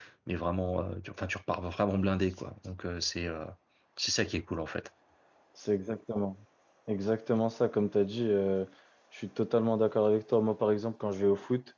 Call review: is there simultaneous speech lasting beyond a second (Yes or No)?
No